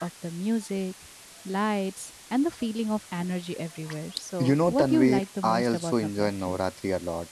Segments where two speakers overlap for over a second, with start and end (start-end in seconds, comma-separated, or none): 4.4-6.6